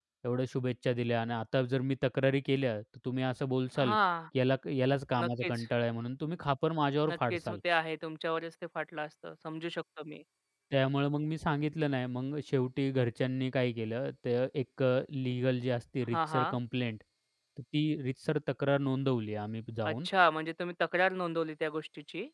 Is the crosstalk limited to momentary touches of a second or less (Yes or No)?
Yes